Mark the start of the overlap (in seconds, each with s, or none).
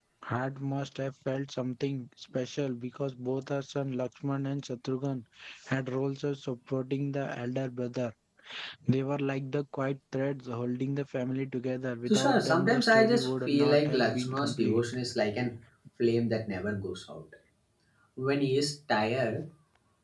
12.1 s